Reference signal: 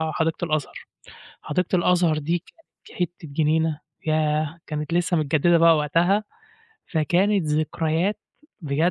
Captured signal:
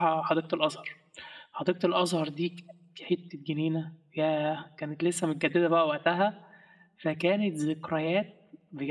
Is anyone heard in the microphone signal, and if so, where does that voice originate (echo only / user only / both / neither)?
echo only